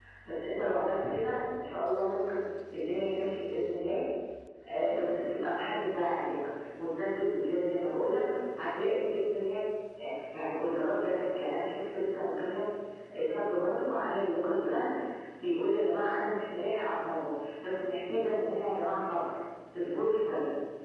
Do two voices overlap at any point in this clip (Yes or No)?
No